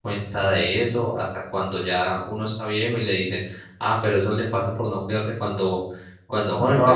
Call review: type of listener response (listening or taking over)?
listening